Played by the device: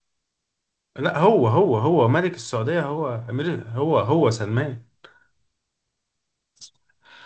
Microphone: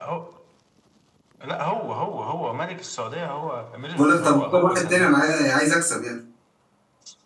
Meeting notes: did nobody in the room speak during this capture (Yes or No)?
No